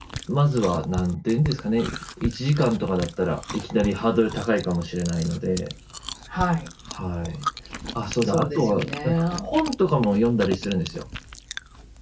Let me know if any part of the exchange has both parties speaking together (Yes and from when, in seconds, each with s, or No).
Yes, from 8.2 s